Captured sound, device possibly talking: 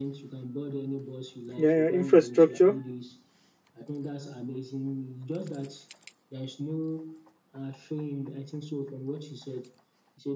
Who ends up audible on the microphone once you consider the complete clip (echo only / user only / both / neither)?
both